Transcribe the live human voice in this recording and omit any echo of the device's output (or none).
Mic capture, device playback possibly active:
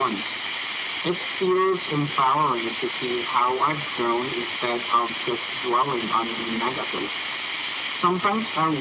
none